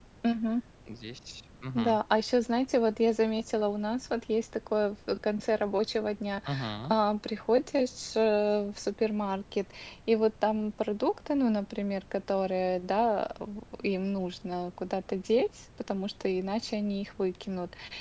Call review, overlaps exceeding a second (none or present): none